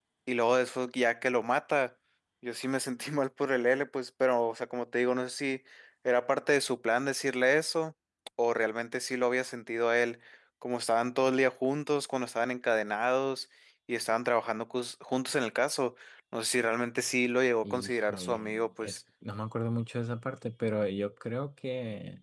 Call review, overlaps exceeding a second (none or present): present